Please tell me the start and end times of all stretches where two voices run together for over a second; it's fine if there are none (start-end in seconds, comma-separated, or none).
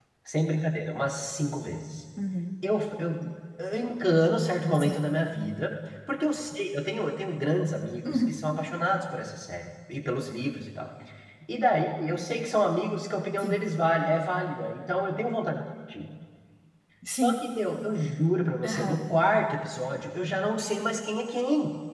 none